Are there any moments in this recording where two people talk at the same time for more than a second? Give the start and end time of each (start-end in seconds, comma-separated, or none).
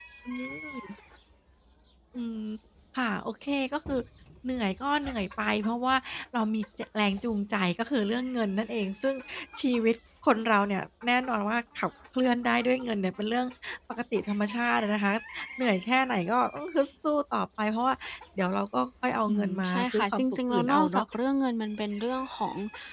19.3-21.0